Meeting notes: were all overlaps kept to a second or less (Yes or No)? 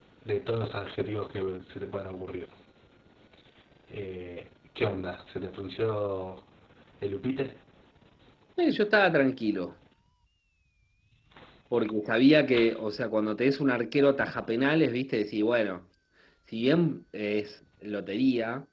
Yes